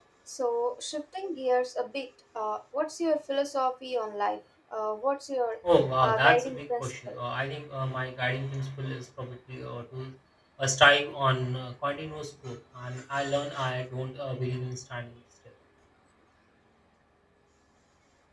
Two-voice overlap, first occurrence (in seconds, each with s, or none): 6.0 s